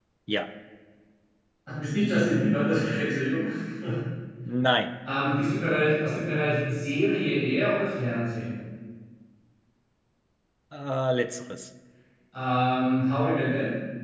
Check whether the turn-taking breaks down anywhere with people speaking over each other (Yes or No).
No